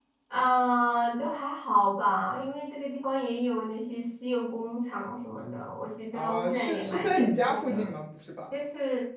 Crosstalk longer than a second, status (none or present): present